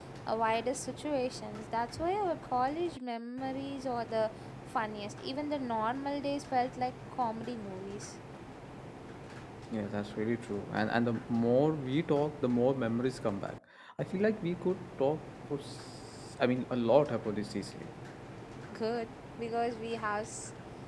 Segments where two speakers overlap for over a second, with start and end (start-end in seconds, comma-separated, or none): none